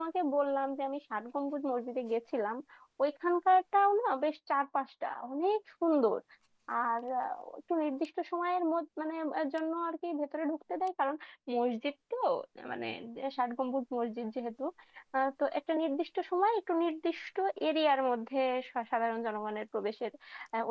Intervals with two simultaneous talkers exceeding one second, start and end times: none

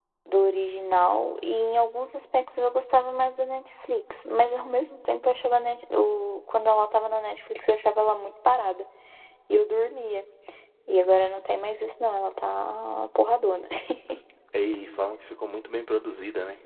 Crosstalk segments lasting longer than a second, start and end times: none

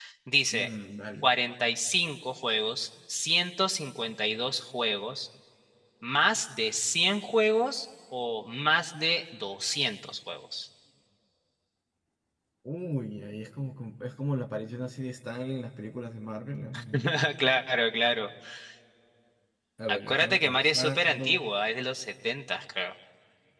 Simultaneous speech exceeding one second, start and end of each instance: 19.9-21.5

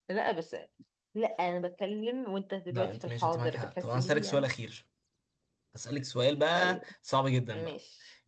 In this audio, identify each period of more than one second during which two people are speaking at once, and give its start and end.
2.7-4.5

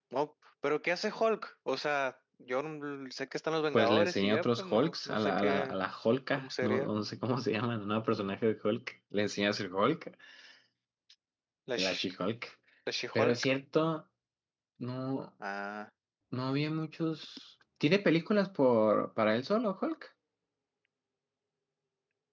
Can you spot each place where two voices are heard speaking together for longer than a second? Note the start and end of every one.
3.7-5.8

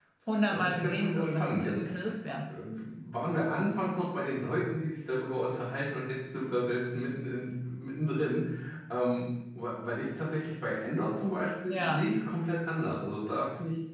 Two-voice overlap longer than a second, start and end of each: 0.5-1.9

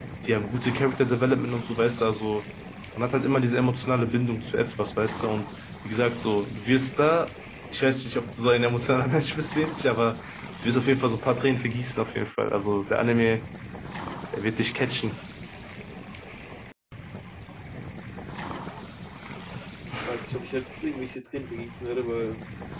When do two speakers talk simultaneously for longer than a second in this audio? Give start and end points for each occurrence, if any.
none

